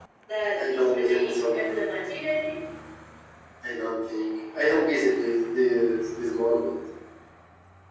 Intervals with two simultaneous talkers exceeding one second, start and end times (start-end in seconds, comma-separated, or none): 0.6-1.8